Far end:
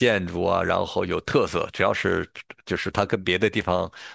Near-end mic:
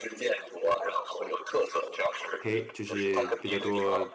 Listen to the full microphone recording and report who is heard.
both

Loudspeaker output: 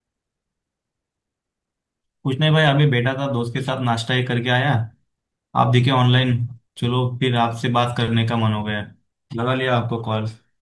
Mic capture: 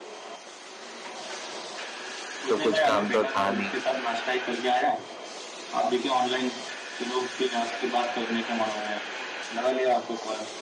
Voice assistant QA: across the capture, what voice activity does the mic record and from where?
both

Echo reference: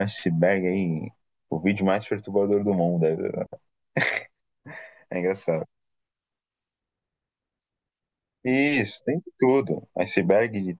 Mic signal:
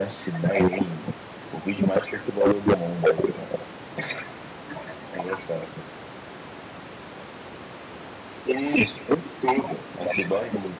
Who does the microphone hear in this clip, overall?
echo only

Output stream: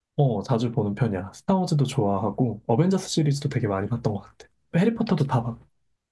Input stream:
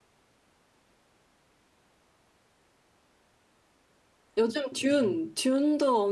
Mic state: user only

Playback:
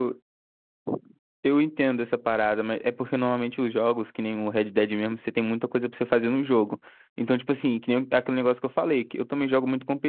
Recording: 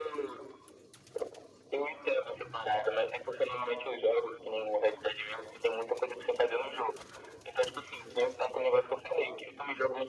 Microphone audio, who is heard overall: echo only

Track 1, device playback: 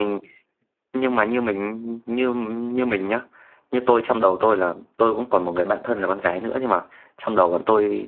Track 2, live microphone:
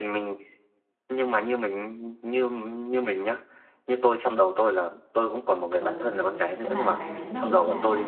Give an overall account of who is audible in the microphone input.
both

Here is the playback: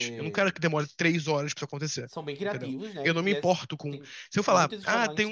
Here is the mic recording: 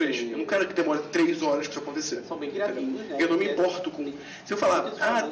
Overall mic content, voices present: echo only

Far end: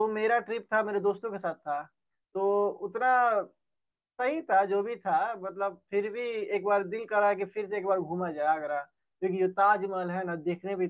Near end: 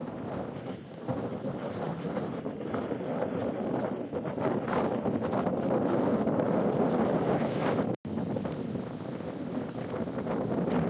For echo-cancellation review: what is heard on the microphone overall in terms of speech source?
neither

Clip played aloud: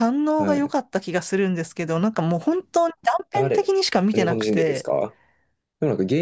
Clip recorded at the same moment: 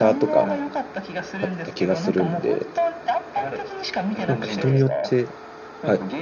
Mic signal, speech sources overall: both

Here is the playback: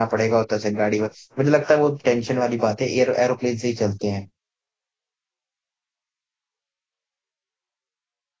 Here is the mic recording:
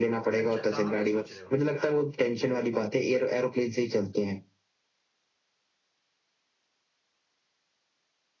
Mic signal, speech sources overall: both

